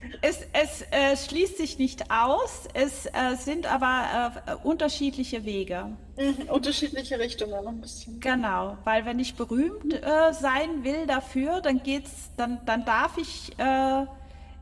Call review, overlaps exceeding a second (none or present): none